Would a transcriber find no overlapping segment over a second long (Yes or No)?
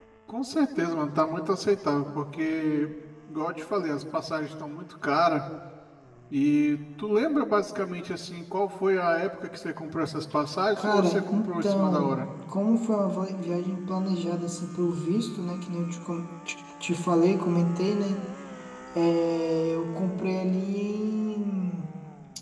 No